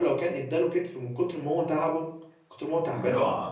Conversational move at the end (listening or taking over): taking over